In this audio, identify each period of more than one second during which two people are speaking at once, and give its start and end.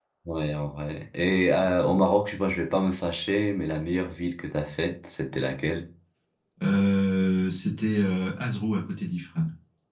none

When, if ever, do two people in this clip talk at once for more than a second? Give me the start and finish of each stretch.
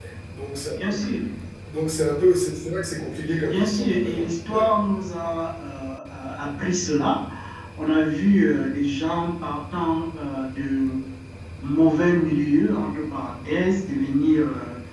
3.4-4.7

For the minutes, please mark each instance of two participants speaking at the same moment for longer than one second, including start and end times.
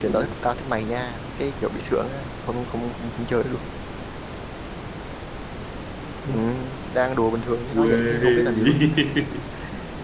7.7-9.0

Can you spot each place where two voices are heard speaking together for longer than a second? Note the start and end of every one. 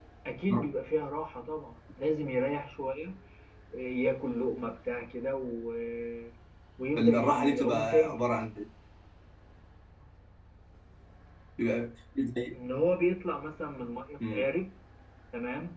7.0-8.2

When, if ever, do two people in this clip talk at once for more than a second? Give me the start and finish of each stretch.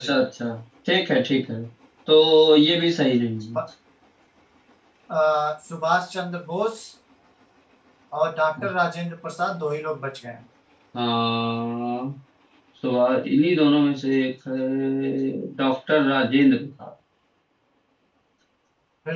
none

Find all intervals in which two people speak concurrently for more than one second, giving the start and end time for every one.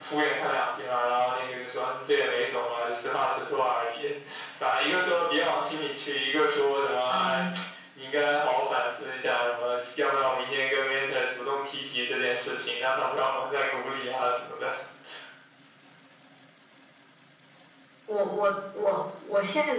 none

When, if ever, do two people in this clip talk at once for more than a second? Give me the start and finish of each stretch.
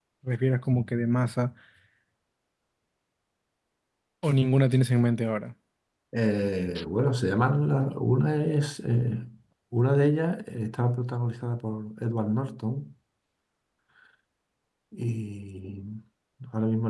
none

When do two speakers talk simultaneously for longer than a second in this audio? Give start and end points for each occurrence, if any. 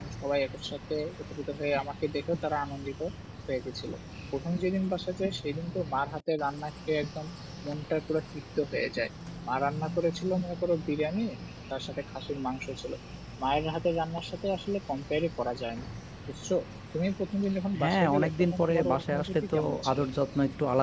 17.8-20.0

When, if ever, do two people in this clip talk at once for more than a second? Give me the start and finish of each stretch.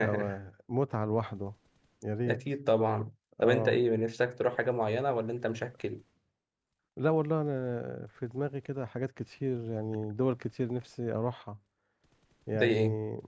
none

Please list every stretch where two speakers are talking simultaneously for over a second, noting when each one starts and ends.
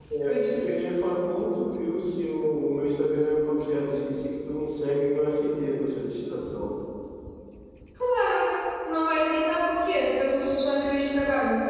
none

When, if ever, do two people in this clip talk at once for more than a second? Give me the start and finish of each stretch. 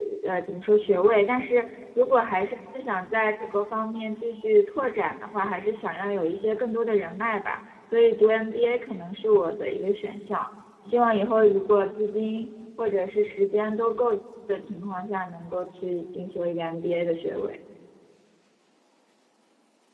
none

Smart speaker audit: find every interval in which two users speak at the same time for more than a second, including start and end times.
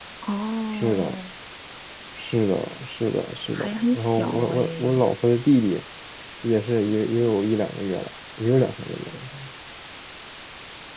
3.5-5.0

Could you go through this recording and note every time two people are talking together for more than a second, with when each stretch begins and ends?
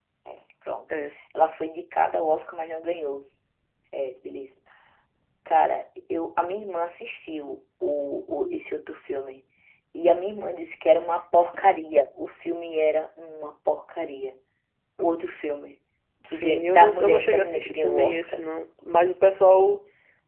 16.3-18.5

